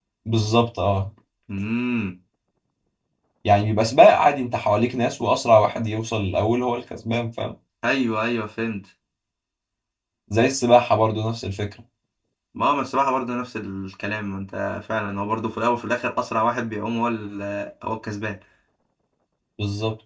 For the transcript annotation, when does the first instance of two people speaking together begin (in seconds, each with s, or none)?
none